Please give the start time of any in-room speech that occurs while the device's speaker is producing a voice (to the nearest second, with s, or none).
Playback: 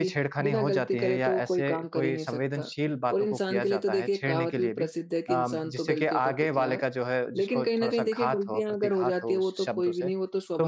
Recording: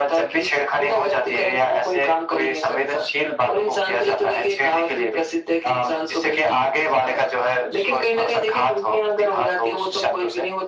none